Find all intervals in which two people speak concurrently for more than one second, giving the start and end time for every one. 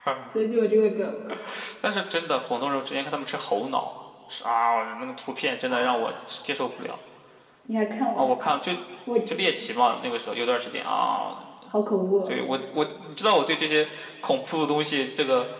none

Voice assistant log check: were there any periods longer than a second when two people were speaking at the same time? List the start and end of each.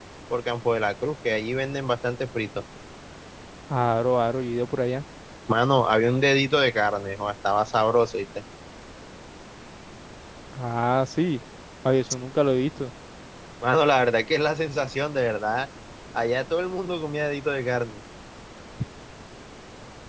none

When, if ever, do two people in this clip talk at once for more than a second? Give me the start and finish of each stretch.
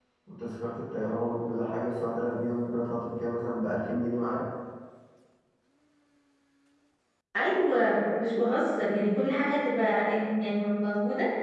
none

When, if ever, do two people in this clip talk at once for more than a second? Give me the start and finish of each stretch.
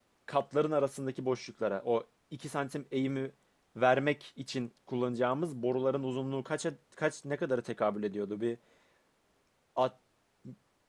none

